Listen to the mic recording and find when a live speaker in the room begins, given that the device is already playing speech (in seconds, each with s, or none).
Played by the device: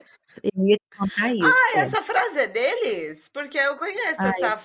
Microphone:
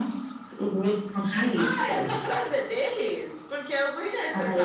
none